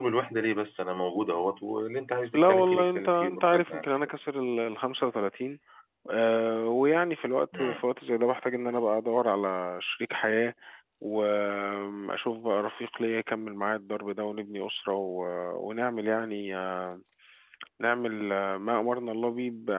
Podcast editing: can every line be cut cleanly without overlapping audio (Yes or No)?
No